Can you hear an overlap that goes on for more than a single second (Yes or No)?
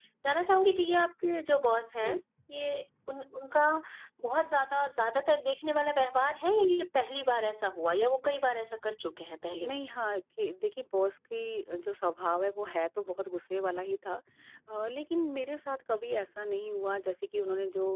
No